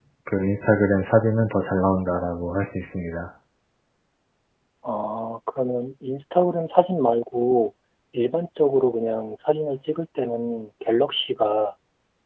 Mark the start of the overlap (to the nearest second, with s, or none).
none